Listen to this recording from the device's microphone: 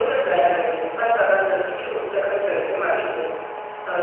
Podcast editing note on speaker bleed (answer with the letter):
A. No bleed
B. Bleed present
B